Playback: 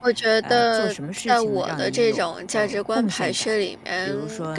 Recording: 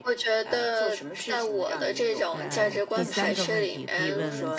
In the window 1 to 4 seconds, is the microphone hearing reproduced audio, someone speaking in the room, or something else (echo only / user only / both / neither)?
both